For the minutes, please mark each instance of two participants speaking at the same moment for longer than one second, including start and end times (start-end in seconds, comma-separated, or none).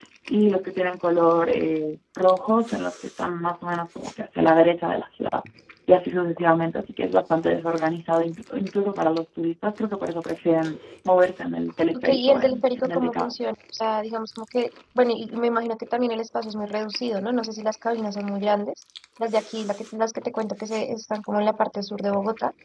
11.9-13.3